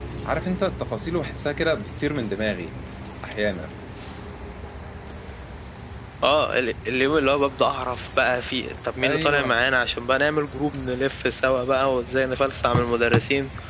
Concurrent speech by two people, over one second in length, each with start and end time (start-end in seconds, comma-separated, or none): none